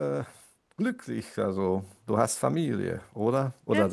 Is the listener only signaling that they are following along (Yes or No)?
No